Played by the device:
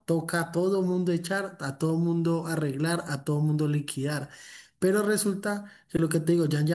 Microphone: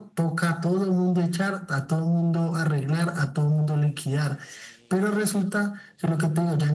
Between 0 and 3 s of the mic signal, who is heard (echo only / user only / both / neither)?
echo only